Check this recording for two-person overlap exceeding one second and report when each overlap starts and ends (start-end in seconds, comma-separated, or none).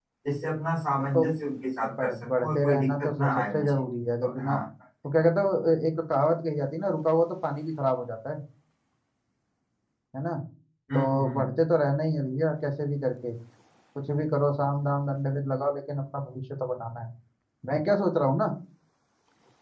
2.0-3.7